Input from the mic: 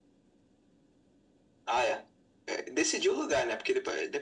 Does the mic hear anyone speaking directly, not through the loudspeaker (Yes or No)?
No